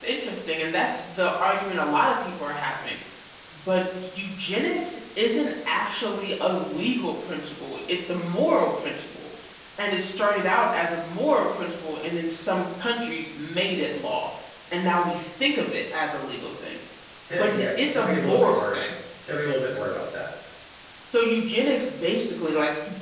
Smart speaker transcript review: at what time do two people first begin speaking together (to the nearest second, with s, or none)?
17 s